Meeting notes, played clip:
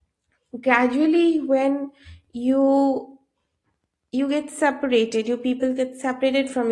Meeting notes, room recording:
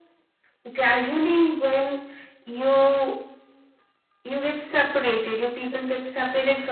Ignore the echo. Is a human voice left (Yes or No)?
No